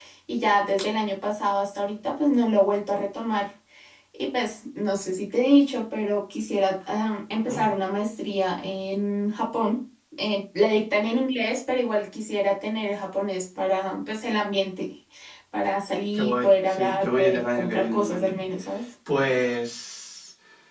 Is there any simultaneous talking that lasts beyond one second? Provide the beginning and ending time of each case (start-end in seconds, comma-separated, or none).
16.1-18.4